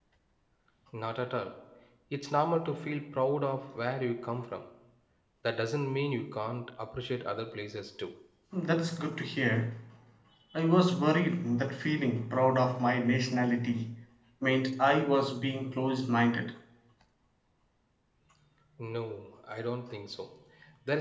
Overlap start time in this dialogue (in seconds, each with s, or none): none